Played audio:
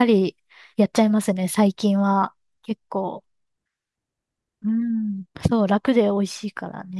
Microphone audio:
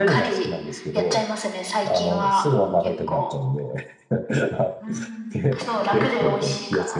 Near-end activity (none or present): present